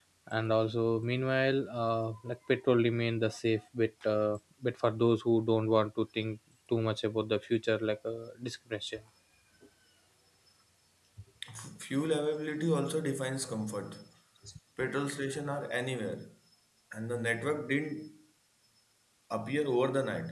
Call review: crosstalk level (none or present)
none